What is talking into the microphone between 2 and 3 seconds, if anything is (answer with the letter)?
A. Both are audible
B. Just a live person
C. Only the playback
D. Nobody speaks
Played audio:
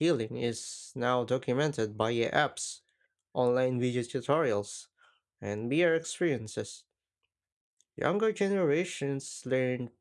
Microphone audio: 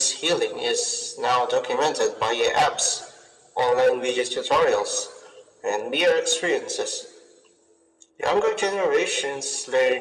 C